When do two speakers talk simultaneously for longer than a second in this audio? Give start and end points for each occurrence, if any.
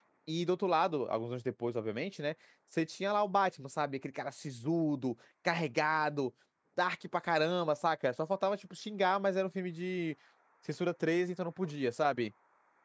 none

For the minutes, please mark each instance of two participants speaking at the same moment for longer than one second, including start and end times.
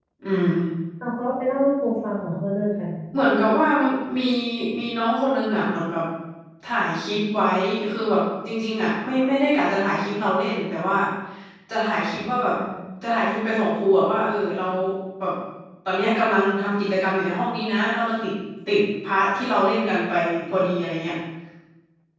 none

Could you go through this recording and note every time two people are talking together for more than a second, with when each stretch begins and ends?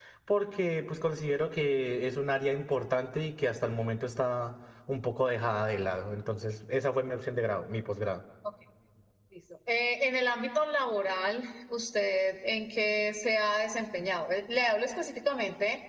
none

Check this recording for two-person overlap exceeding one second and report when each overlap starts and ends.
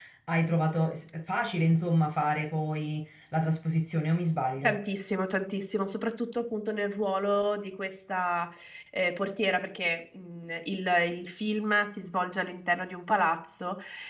none

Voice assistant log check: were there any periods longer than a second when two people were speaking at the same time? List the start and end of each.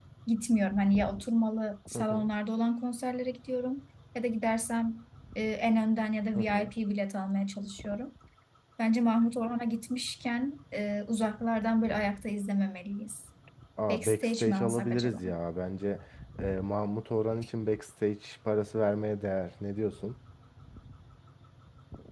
13.9-15.2

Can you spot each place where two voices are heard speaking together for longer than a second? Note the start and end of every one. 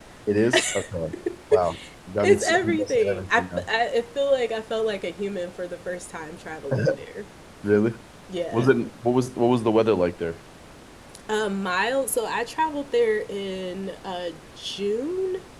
2.2-3.6

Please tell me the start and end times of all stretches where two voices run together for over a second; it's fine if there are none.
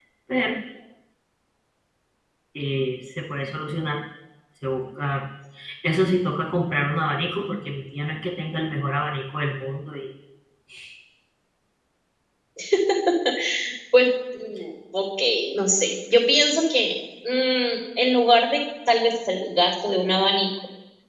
none

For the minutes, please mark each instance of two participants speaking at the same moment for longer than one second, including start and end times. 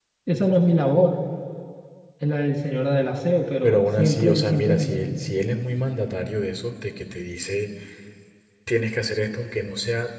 3.6-5.2

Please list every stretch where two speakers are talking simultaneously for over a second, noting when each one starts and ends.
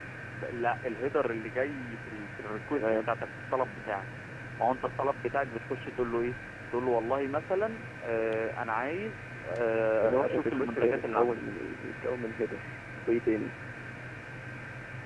10.0-11.4

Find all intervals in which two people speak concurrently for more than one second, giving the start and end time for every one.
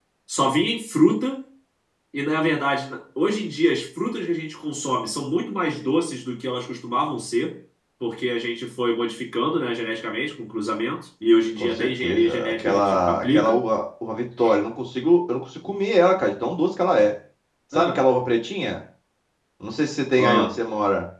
11.6-13.6

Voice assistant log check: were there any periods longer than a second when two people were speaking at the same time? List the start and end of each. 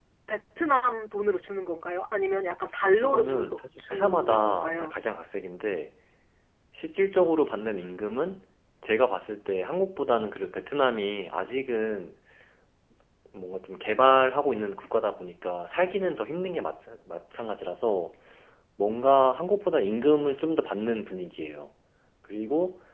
3.0-4.9

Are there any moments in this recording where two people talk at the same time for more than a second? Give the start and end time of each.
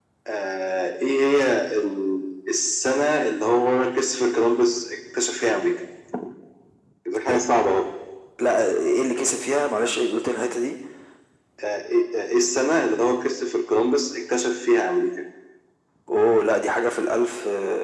none

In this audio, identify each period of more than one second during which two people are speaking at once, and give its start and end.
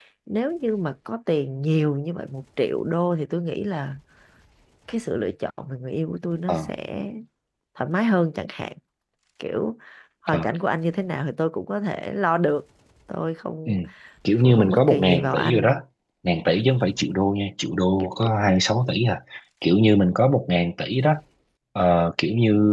14.4-15.7

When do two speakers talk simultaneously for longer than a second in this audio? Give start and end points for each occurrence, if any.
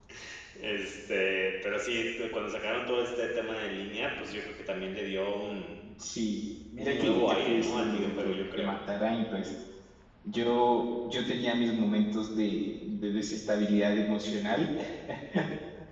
6.8-8.7

